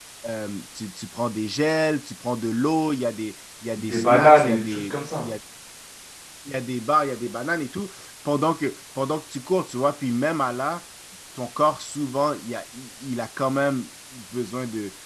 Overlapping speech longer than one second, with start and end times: 3.8-5.3

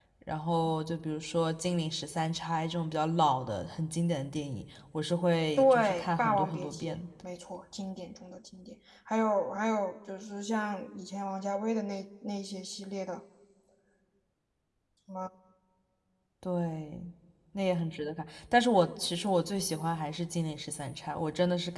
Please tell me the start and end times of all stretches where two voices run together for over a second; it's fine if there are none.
5.6-7.0

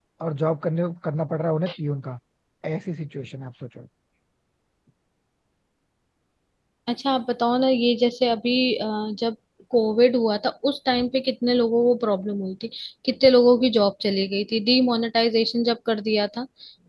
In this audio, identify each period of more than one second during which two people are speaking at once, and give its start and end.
none

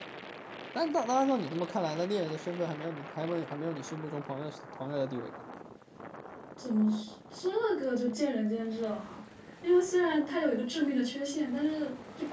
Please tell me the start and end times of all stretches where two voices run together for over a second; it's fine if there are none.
none

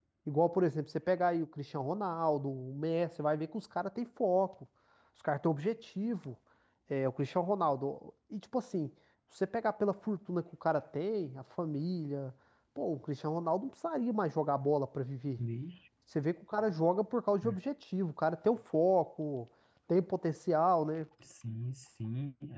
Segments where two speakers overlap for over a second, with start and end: none

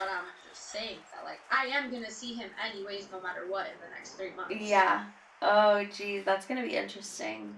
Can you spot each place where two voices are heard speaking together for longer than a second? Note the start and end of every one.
none

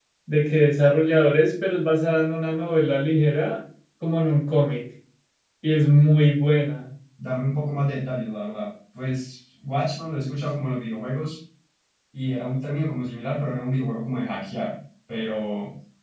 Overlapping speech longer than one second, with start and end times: none

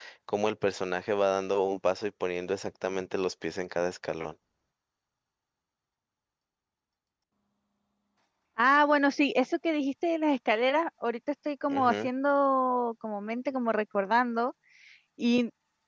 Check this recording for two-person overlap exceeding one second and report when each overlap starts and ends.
none

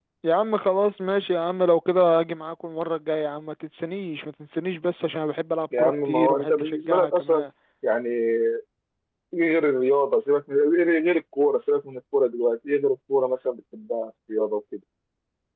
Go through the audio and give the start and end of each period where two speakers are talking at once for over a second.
5.8-7.4

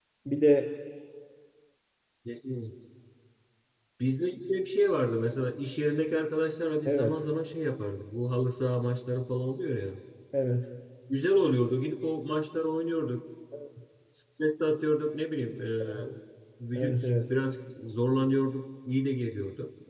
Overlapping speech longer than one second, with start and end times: none

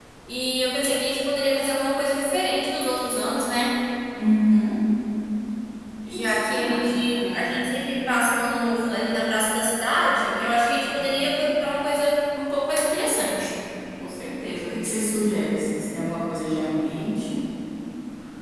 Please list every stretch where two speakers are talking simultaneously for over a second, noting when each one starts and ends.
6.1-7.6

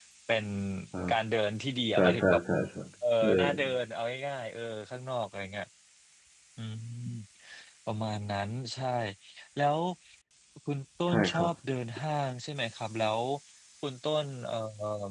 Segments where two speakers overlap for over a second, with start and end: none

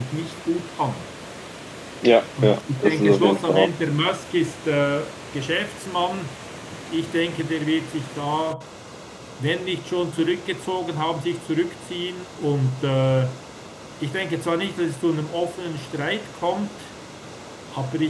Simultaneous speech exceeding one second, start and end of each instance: 2.4-3.7

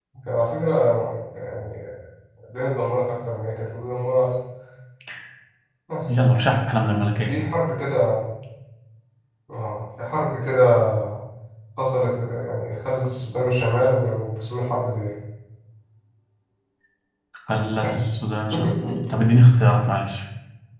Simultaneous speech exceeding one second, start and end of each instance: none

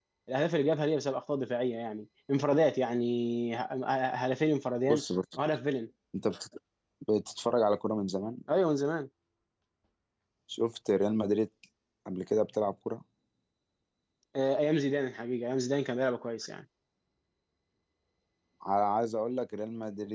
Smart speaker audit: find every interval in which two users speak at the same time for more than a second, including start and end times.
none

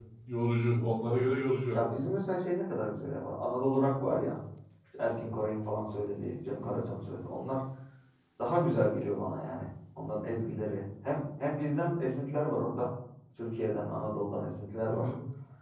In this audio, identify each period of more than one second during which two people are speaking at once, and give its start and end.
none

